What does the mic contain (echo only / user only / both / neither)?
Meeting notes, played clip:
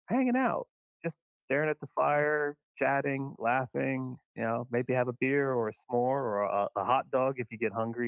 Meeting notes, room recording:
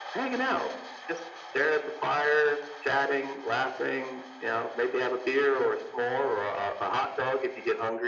echo only